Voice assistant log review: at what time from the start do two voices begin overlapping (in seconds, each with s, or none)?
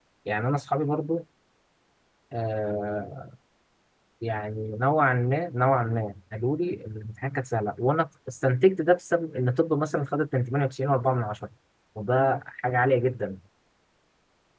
none